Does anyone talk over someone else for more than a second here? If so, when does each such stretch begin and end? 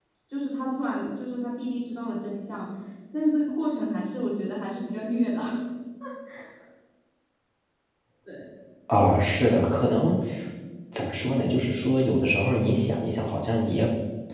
none

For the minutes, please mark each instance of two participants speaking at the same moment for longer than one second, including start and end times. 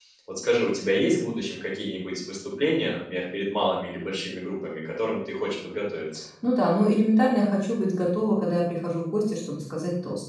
none

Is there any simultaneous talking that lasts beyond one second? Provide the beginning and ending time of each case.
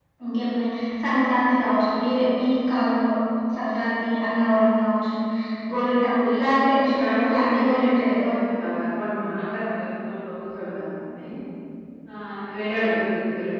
6.8-8.3

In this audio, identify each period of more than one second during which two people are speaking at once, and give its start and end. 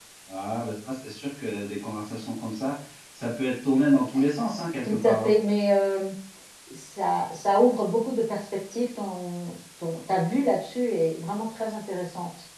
none

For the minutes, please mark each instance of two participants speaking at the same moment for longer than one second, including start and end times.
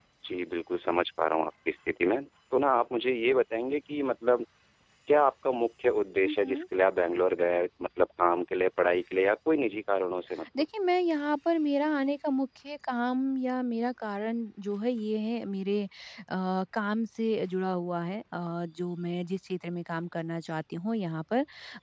none

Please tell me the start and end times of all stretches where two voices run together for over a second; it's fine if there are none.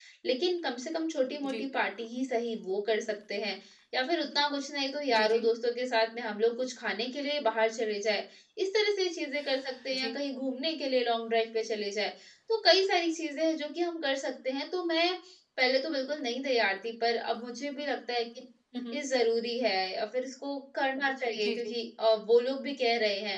none

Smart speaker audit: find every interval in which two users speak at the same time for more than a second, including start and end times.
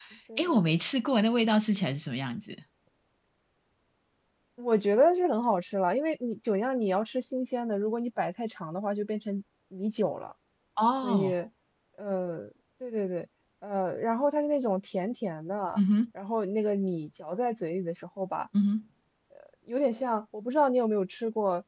none

